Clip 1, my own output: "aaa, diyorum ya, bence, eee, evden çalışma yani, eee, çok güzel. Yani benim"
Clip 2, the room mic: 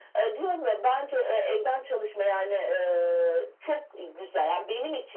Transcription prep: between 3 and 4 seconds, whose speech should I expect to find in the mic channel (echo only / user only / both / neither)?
echo only